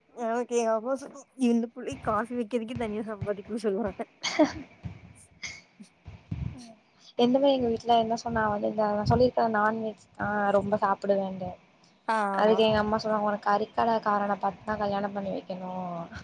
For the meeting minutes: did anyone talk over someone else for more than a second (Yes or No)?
No